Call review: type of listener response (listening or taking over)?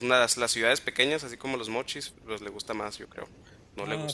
taking over